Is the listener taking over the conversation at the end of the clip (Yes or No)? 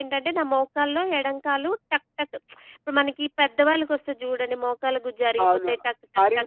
Yes